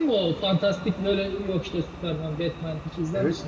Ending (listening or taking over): taking over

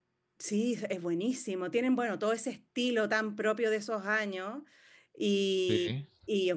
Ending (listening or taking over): listening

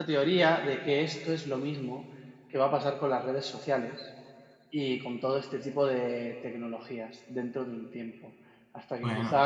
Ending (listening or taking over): listening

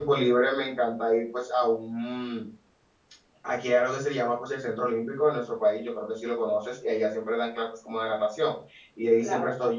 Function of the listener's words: listening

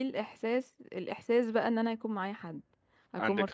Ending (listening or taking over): listening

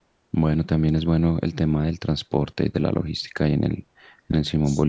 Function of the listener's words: taking over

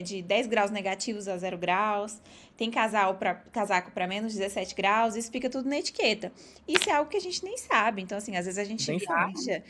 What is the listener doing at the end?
listening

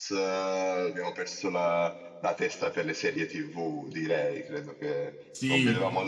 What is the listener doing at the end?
listening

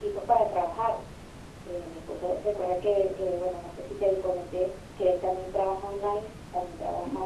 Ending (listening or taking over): listening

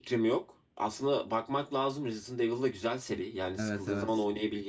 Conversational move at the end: listening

